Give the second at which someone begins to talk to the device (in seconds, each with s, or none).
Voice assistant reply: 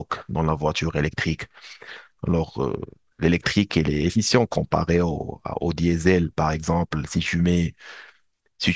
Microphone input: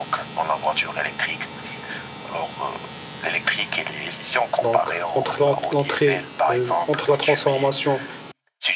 4.6 s